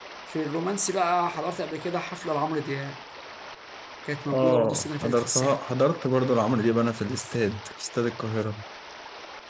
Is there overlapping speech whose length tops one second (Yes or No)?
Yes